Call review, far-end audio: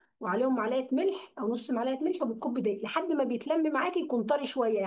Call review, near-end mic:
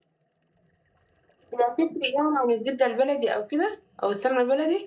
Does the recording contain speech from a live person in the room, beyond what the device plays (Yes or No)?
Yes